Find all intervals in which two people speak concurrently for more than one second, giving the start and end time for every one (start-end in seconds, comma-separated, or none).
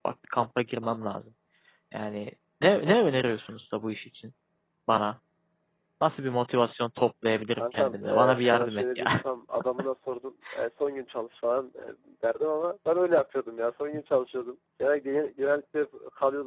7.6-9.0